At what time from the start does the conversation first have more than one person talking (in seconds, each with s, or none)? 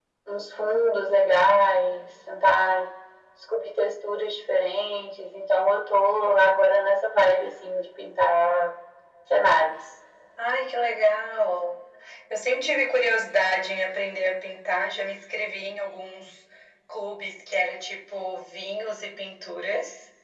none